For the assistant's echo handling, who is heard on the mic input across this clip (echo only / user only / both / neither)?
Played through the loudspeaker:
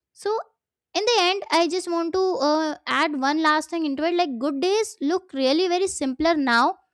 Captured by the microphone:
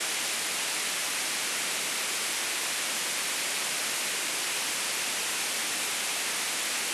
neither